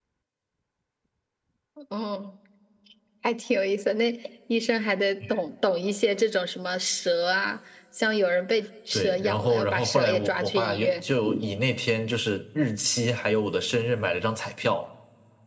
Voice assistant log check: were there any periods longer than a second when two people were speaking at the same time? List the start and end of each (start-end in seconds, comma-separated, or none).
8.9-11.0